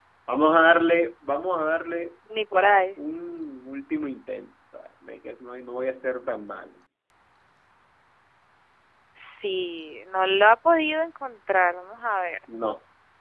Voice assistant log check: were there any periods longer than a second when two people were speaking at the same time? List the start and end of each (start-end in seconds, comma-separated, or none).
none